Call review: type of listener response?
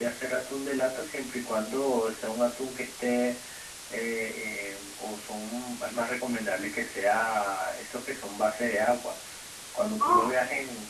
listening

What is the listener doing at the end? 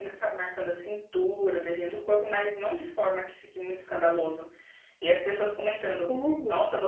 listening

